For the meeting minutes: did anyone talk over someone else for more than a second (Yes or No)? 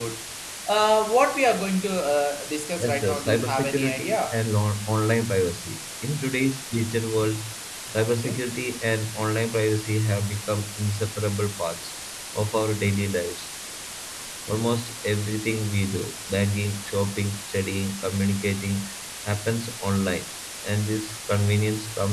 Yes